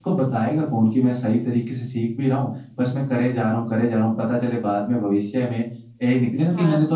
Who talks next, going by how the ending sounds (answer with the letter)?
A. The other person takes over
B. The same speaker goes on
B